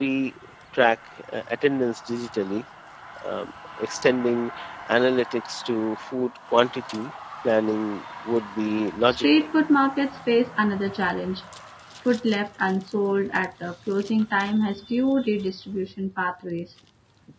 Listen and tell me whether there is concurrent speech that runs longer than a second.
No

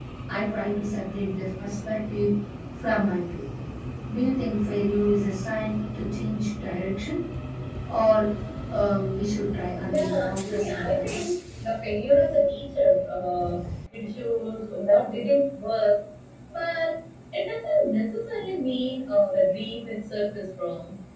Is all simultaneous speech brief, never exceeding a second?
No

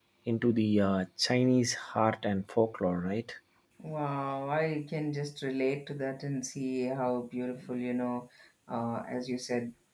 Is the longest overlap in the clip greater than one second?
No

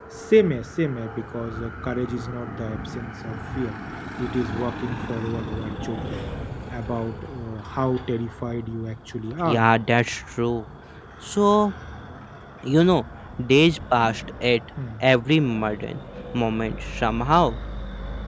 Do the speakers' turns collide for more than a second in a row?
No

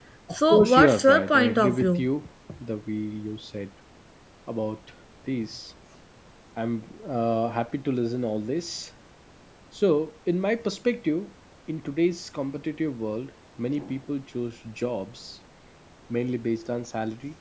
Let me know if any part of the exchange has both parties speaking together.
Yes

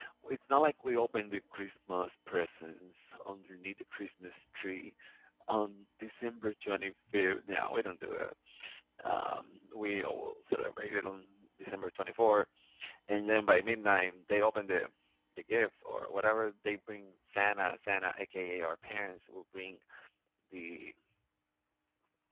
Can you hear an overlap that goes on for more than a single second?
No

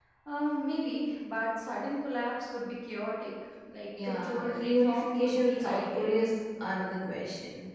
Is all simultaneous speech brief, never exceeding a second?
No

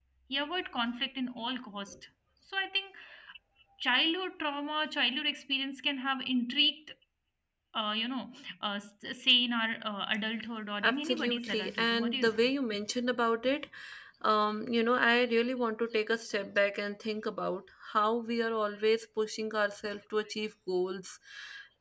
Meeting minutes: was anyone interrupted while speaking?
Yes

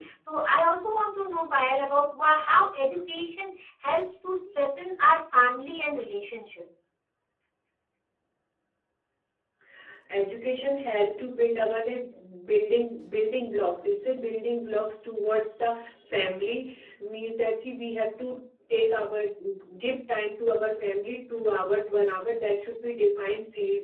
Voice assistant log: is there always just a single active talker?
Yes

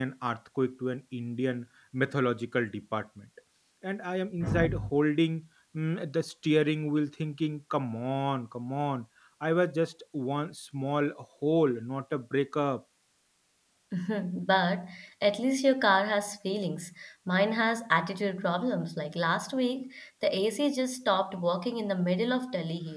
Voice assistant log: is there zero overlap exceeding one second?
Yes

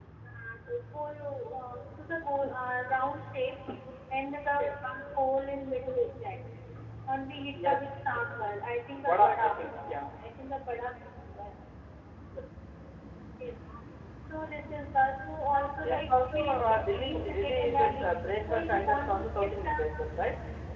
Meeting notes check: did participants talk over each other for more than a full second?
Yes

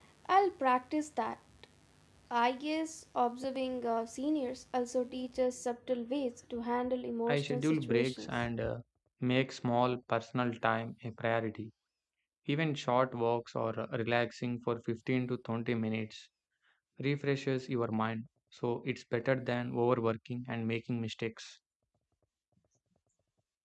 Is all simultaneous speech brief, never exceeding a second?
No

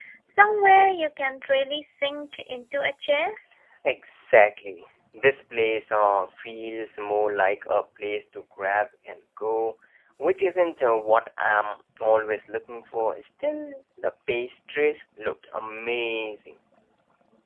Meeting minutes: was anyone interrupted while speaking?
No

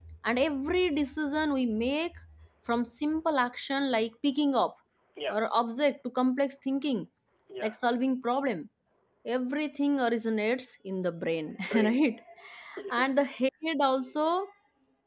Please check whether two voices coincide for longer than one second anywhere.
No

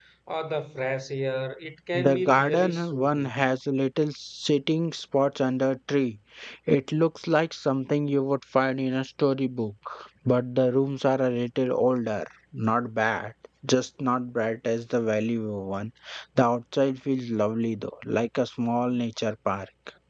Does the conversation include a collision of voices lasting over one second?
Yes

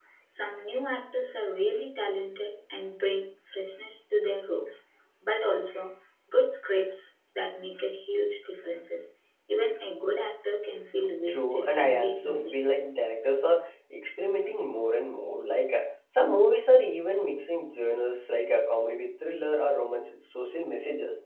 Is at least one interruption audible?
Yes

